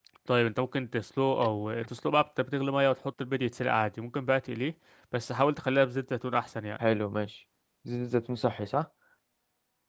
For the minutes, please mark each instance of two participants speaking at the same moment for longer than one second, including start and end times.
none

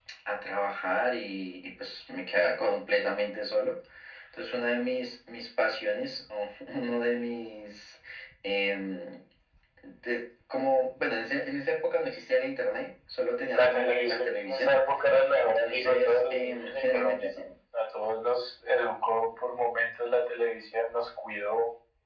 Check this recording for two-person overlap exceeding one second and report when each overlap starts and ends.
13.5-14.8, 15.5-17.4

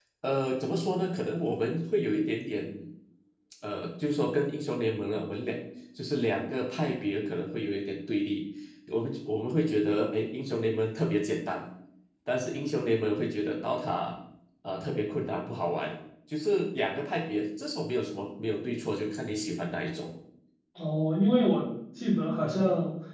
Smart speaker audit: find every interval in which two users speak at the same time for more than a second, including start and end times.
none

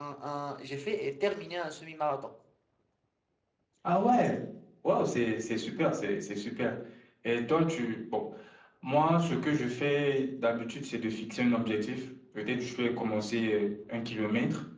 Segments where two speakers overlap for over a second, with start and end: none

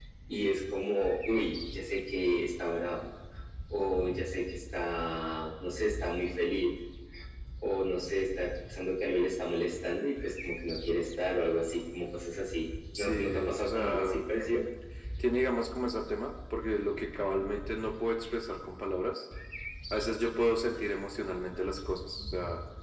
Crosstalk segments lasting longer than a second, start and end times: 13.0-14.2

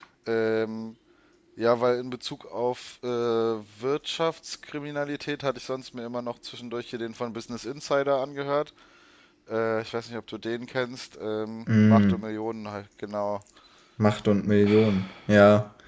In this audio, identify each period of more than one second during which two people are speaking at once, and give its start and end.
none

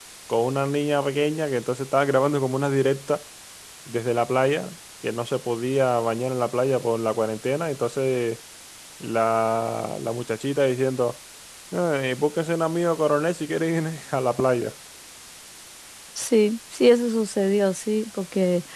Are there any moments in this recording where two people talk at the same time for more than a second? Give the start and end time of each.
none

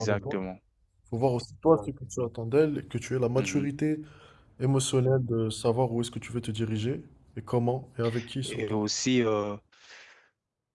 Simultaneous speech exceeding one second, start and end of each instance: none

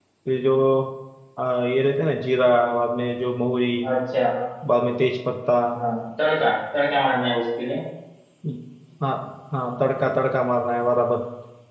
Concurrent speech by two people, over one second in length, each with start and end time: none

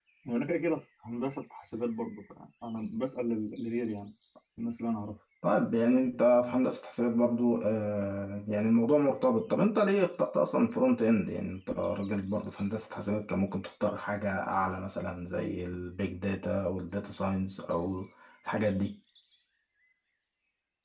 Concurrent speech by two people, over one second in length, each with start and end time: none

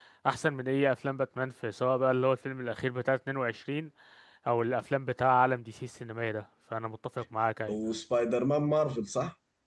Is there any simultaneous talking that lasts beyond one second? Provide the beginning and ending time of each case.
none

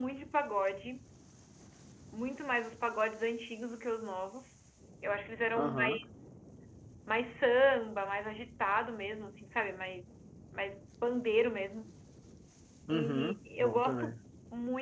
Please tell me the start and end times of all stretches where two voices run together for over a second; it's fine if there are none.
12.9-14.2

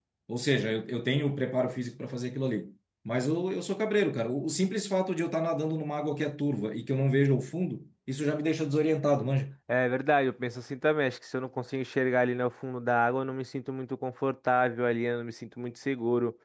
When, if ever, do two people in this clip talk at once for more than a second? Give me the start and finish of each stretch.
none

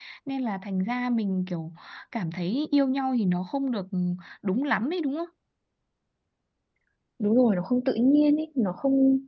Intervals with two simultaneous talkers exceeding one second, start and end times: none

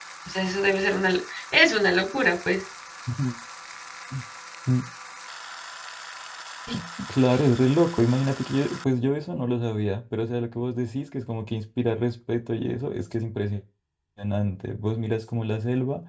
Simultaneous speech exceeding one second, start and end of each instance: none

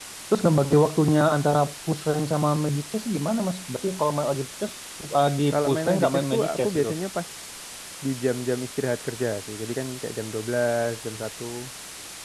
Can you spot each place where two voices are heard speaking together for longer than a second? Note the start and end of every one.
5.5-6.9

